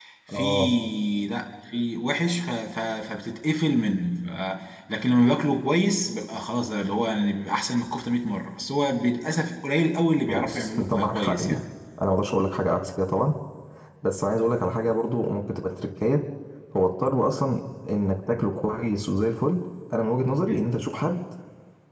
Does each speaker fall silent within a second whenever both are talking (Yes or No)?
No